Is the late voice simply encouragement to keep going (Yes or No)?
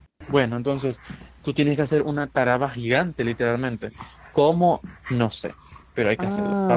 No